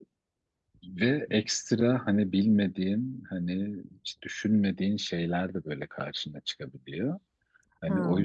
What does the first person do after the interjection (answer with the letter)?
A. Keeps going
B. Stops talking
A